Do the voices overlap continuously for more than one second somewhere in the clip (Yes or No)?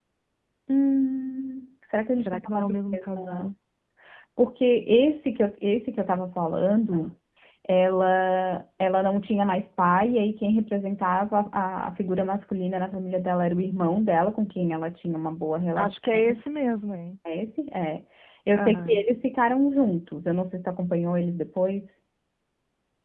Yes